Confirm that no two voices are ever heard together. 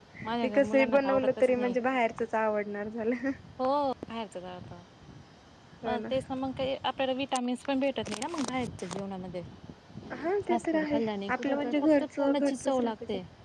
No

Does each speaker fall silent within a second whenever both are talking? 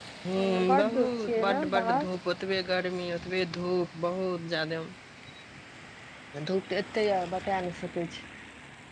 No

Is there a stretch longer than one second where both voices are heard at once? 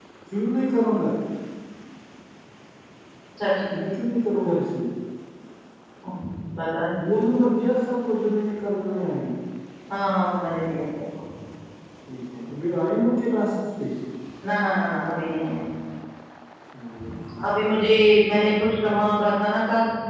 No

